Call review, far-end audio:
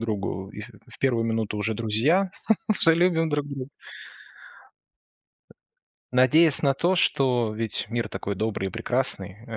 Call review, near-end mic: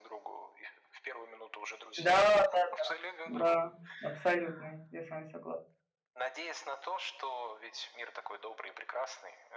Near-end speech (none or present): present